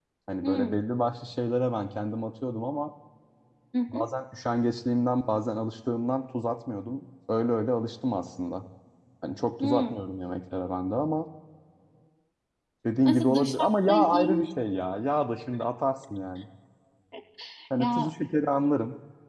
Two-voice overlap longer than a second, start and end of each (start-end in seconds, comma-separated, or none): 13.0-14.5